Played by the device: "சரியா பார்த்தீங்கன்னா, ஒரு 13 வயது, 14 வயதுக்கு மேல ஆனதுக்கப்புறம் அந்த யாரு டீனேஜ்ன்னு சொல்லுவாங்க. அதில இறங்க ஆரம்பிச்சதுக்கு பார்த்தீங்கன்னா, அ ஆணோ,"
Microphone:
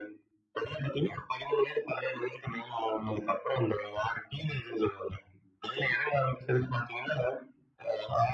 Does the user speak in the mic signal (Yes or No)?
No